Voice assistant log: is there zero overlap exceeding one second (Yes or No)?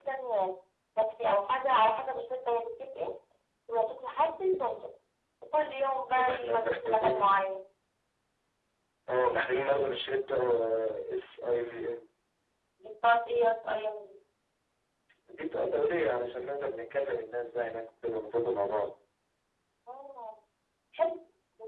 No